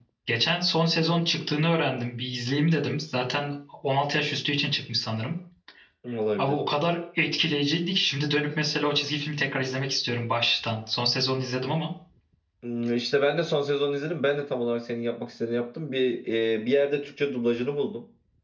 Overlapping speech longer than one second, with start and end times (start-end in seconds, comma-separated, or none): none